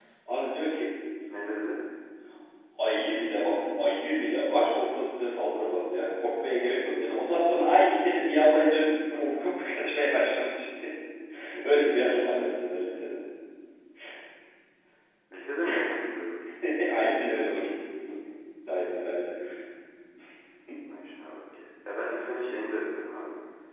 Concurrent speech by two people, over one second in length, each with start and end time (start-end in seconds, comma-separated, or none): none